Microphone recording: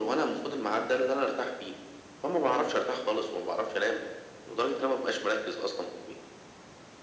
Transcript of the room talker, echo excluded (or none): none